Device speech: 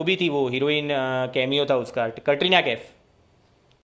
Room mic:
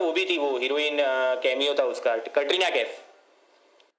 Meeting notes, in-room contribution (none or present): none